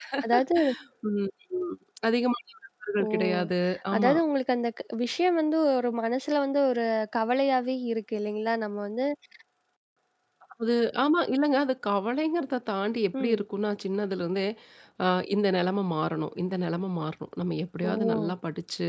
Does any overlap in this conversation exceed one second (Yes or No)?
No